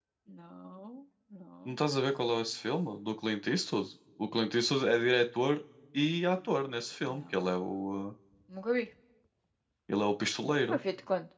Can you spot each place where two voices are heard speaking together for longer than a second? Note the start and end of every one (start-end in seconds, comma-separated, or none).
none